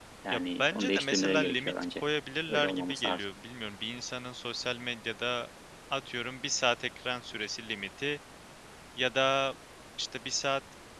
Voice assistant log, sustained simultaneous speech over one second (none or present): present